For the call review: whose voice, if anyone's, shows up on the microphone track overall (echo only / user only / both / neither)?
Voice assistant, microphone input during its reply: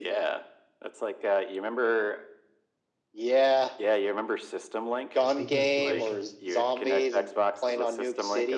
both